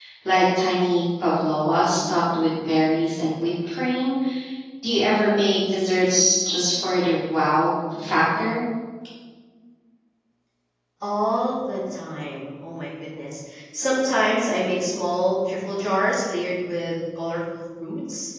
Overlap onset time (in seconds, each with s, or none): none